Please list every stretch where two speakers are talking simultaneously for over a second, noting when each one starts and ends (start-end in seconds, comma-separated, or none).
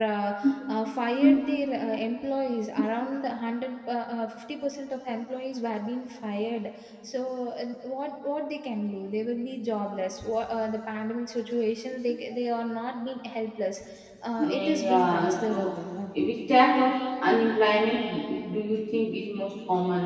14.4-15.7